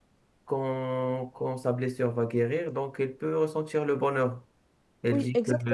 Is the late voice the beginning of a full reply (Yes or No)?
No